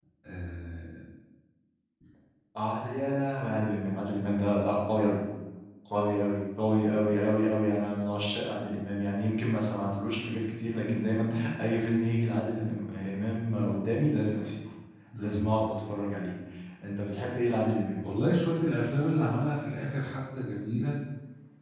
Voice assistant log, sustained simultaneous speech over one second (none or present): none